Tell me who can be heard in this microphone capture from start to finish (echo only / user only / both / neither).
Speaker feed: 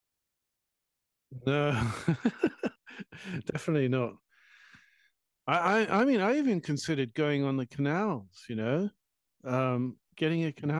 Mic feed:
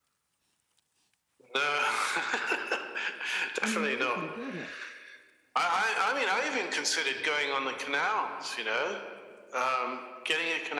both